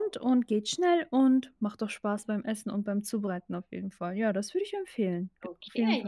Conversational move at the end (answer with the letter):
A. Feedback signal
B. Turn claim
B